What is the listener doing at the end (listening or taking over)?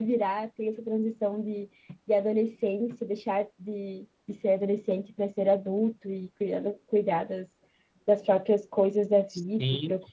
taking over